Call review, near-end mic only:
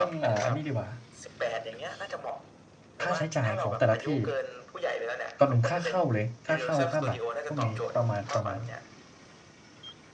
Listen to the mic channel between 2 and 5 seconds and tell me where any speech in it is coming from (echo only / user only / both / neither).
both